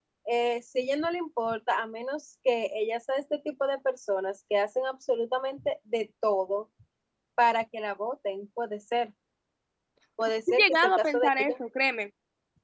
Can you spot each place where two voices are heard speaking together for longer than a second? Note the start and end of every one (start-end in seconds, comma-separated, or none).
10.3-11.5